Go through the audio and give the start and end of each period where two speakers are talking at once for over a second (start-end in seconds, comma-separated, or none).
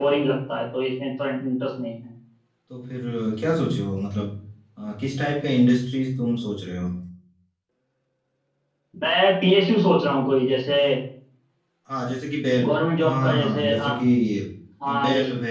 12.6-13.9